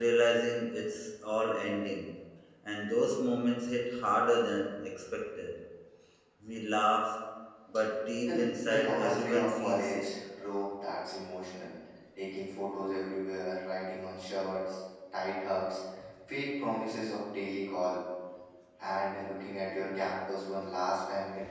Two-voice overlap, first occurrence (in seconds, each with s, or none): 8.4 s